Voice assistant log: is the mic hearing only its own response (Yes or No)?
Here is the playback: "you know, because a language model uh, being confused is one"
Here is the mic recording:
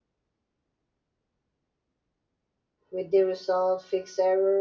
No